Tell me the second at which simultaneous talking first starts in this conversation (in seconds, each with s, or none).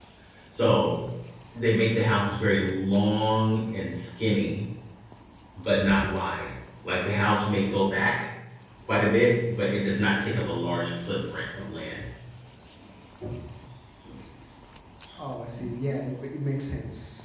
none